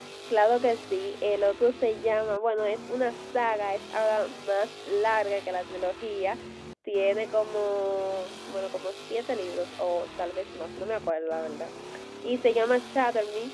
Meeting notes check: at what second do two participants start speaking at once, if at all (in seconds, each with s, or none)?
none